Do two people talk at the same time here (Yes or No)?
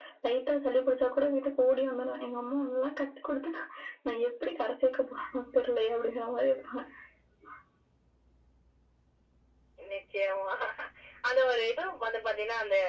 No